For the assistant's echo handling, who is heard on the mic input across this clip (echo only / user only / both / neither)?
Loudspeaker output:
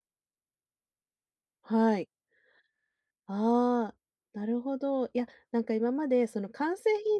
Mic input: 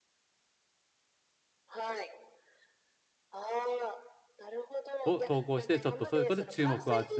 both